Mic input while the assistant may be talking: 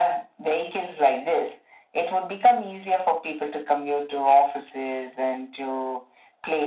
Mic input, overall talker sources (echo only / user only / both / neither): echo only